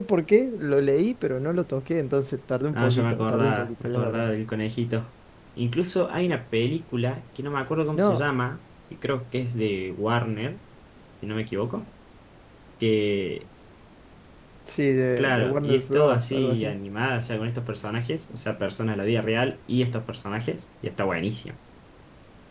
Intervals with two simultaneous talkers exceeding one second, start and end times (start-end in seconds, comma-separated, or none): 2.7-4.3, 15.2-16.8